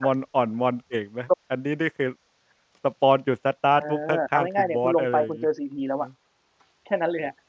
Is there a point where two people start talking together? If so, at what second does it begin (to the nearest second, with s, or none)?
4 s